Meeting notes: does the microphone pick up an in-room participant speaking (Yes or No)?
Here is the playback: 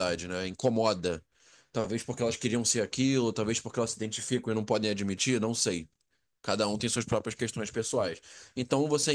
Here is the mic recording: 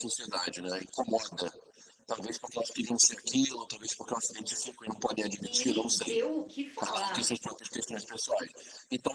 Yes